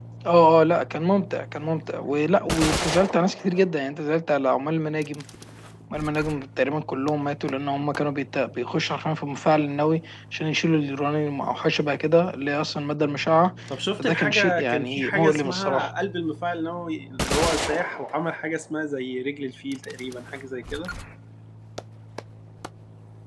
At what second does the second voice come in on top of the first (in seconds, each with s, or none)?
14.0 s